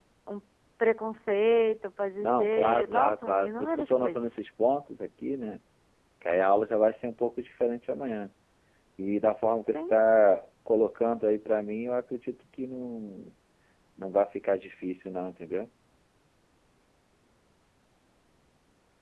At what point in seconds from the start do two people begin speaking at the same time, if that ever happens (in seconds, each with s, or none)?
2.2 s